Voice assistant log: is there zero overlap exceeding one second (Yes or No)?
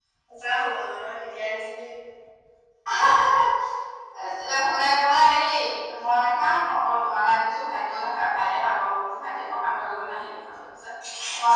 Yes